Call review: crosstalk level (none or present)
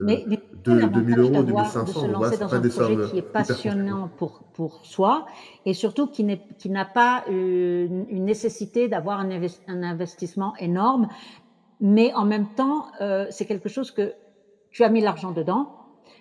present